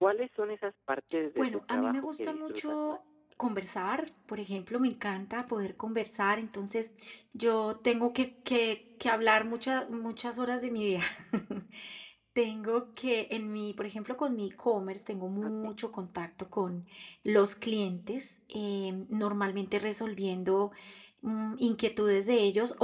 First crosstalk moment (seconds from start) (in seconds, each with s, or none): 1.4 s